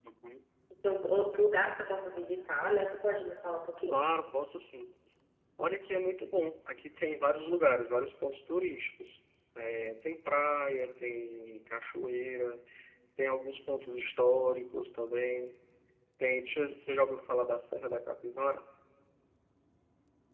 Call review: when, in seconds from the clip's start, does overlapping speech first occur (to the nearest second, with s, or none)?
none